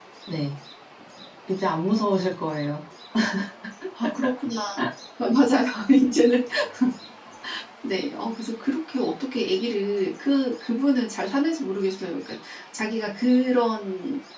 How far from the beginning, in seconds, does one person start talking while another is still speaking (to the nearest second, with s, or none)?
none